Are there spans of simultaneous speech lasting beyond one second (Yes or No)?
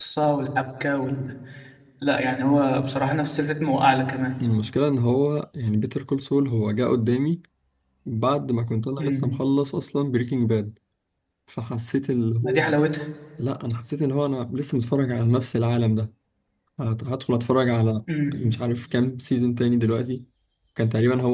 No